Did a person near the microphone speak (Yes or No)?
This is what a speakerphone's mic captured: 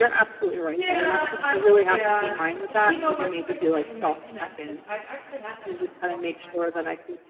Yes